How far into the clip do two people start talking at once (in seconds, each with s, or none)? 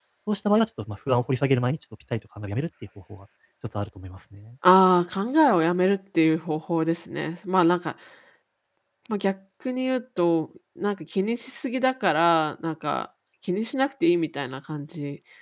none